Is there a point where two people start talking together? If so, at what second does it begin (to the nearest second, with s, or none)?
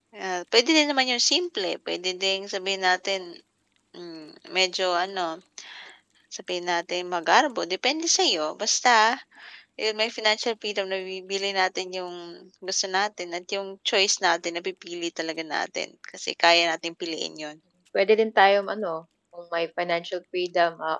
none